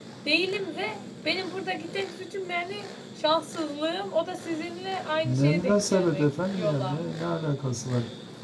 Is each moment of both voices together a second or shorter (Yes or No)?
No